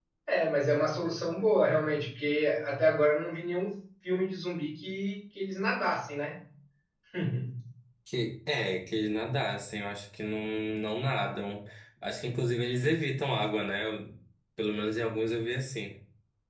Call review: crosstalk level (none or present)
none